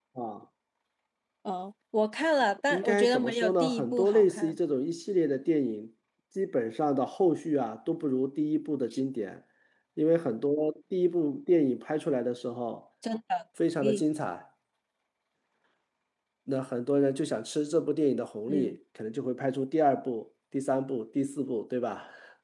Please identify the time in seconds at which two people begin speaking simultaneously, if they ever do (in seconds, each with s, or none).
2.7 s